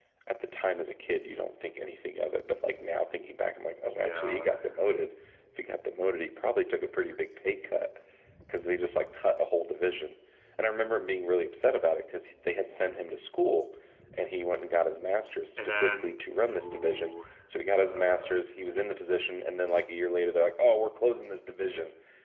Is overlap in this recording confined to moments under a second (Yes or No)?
No